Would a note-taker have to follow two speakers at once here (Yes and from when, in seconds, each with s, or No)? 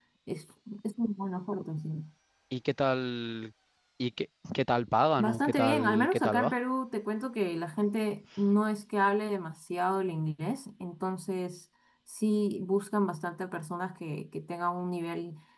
Yes, from 5.2 s